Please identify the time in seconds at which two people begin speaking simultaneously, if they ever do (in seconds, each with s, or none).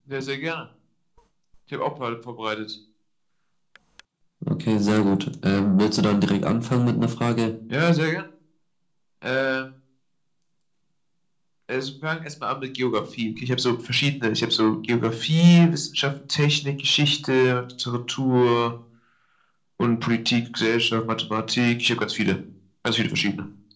none